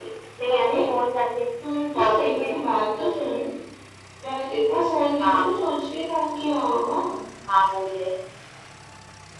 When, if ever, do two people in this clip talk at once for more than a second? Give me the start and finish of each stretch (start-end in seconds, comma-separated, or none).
2.0-3.3